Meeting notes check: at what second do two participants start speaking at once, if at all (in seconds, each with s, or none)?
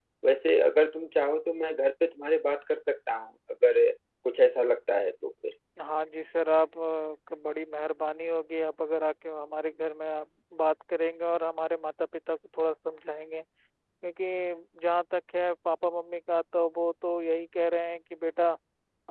none